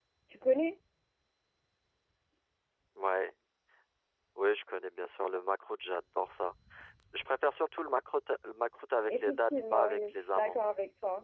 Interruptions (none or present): present